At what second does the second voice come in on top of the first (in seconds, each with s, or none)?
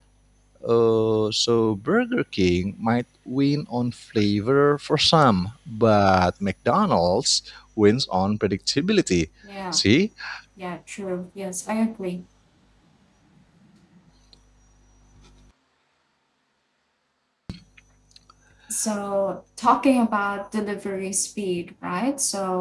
none